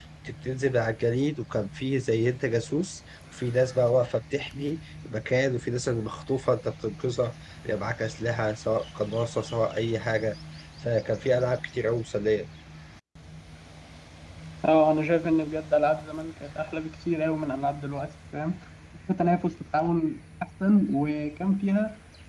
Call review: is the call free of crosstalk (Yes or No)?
Yes